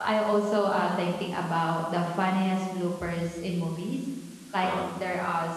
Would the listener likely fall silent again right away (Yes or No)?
Yes